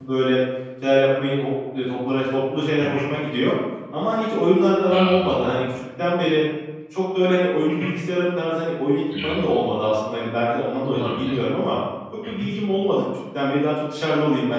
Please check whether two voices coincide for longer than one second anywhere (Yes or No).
No